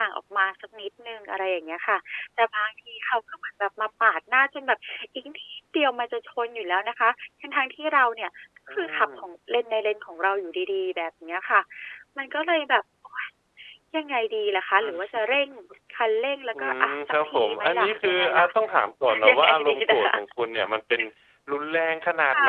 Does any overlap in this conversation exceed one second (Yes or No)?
Yes